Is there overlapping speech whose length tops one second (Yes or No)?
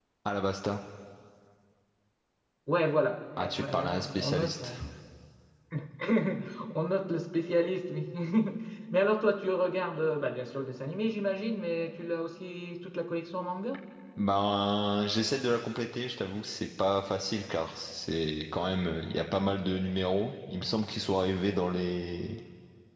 Yes